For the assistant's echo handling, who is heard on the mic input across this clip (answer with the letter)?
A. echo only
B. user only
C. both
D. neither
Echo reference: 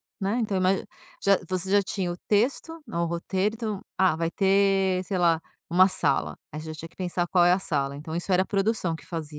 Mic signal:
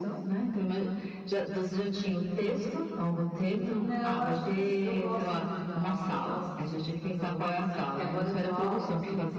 C